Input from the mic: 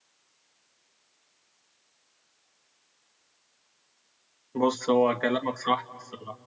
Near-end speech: present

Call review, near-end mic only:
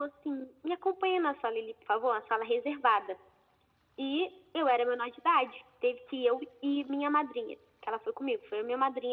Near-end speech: none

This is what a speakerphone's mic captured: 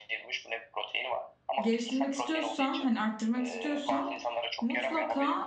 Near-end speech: present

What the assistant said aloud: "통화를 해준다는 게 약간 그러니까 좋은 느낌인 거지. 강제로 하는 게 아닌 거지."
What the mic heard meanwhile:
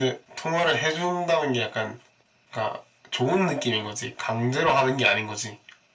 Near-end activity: none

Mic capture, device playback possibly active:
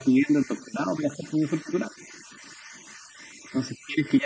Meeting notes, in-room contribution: none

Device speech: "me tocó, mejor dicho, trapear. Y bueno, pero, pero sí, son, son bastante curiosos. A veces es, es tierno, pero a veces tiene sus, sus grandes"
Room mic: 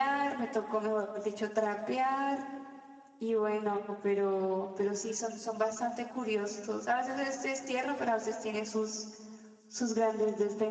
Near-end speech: none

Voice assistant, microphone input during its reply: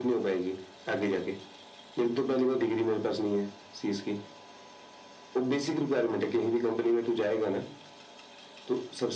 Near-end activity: none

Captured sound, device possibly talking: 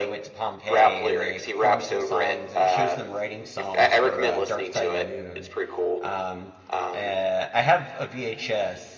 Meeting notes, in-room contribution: present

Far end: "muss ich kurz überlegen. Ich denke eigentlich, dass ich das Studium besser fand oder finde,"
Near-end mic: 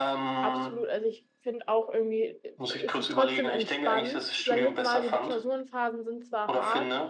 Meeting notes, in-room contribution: present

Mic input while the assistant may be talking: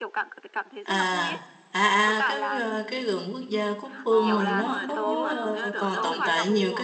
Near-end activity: present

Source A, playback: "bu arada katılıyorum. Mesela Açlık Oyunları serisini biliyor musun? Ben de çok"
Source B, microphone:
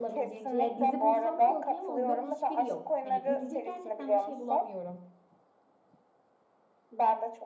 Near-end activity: present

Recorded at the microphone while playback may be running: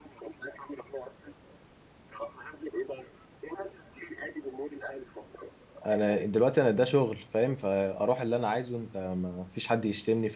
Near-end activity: present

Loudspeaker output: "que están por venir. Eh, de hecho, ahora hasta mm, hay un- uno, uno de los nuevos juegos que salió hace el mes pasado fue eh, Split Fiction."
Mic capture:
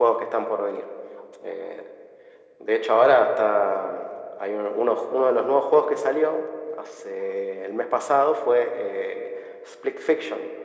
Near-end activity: none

